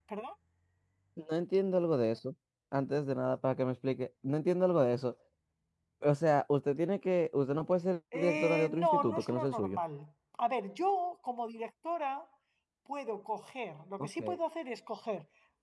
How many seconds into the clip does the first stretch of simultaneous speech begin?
8.1 s

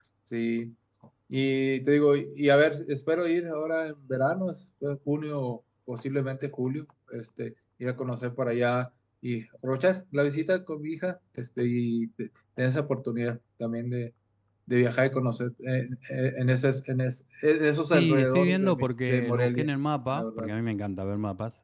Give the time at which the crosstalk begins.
17.9 s

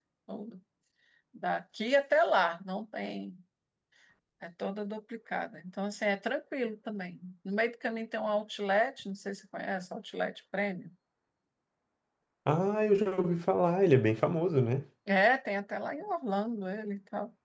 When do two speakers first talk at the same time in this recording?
none

